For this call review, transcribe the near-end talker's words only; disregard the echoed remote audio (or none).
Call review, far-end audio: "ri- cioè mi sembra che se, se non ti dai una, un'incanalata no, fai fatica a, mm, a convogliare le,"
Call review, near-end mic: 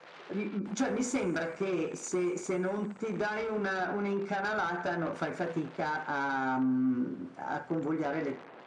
none